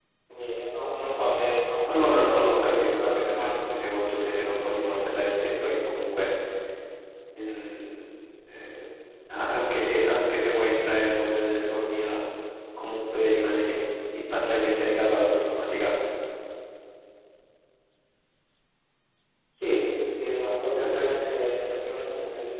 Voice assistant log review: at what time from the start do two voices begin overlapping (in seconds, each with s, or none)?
1.9 s